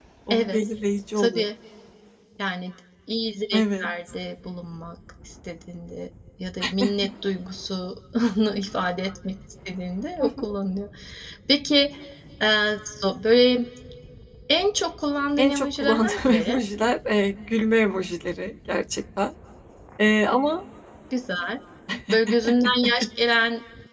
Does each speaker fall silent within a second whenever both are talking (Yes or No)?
No